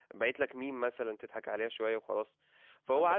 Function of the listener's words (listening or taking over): listening